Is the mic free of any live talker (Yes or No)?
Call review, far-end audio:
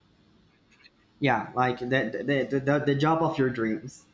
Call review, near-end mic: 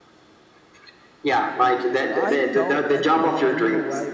No